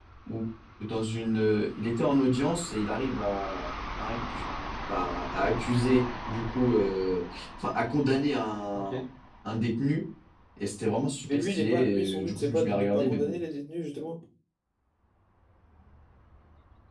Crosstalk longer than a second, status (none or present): present